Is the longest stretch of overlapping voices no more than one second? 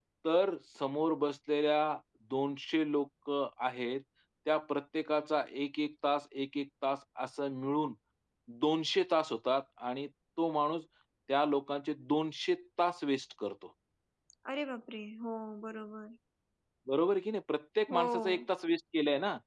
Yes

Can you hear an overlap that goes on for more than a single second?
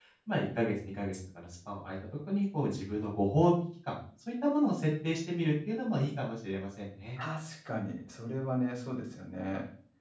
No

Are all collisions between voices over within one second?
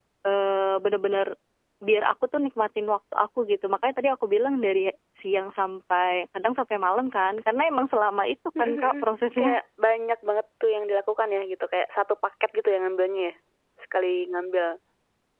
Yes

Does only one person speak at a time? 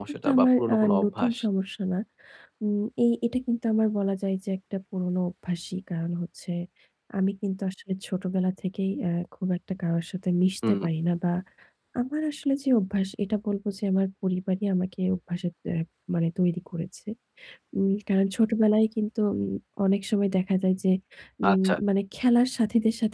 No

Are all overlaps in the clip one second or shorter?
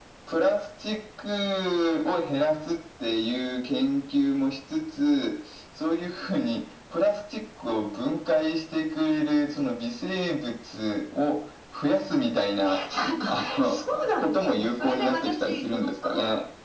No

